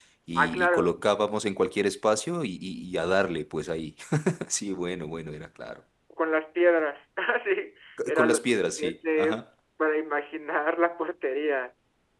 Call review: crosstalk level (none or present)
present